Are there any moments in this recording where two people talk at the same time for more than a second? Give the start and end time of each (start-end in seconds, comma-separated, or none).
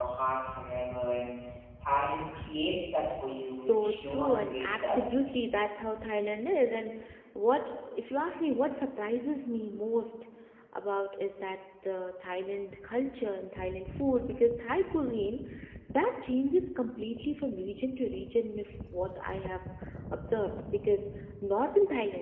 3.5-5.2